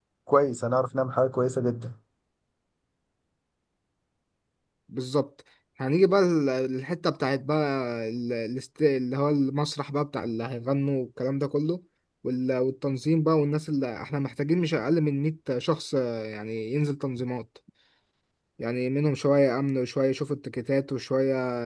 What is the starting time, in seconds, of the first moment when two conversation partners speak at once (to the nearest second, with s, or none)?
none